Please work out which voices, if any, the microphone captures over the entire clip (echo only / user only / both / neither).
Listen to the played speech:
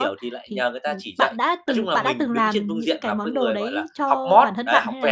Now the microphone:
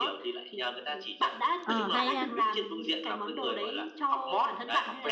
both